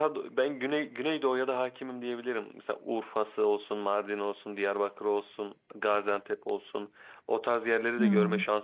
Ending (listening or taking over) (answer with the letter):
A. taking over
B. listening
B